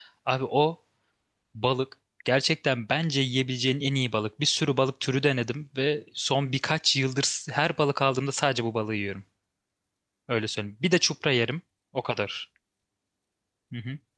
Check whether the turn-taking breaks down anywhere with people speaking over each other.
No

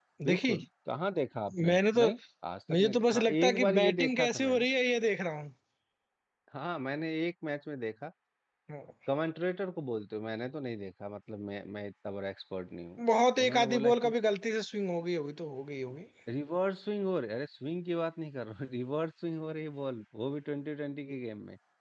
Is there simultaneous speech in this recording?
Yes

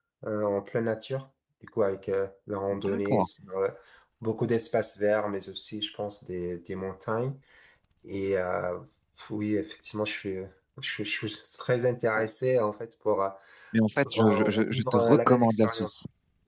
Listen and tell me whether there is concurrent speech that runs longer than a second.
Yes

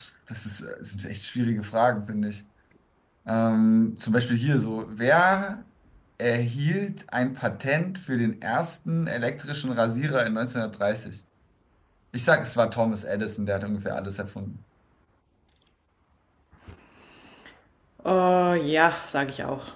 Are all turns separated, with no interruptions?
Yes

